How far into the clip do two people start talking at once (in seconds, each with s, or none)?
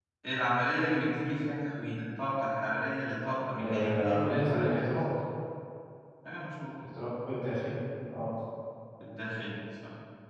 3.5 s